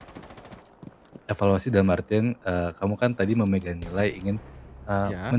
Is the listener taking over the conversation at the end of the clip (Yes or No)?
No